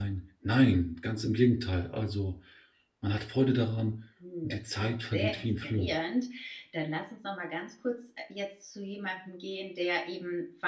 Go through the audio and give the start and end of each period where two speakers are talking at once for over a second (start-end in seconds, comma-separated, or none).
4.4-6.0